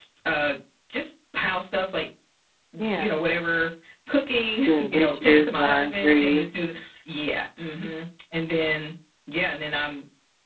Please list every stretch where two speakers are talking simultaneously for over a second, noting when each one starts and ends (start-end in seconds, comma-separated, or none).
4.7-6.4